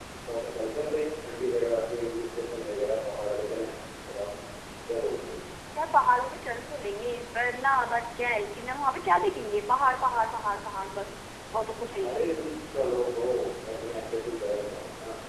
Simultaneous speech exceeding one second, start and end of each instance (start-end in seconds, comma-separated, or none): none